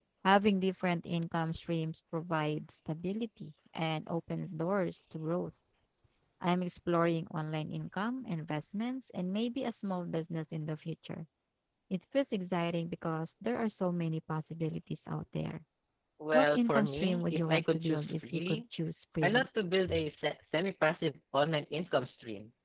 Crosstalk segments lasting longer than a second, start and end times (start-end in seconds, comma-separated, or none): 16.3-18.6